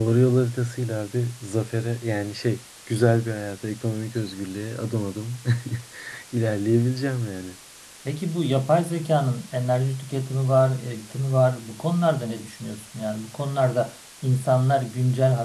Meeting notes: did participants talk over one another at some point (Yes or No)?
No